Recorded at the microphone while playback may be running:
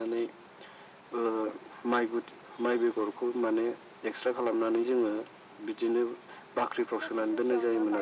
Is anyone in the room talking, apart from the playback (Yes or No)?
Yes